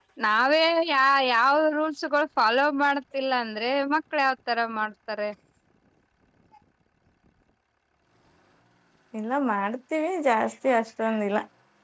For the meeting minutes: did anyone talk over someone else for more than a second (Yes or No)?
No